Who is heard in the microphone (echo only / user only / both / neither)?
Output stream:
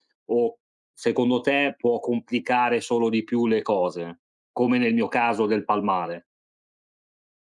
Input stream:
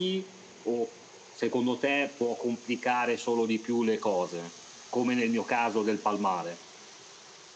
echo only